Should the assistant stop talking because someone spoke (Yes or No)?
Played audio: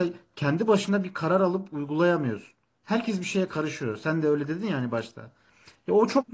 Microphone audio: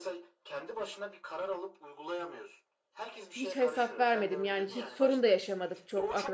Yes